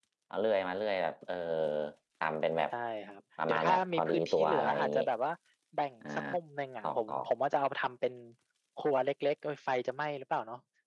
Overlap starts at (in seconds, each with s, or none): 3.5 s